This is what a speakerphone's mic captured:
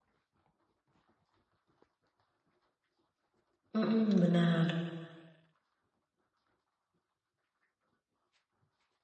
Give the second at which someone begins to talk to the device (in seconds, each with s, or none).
3.7 s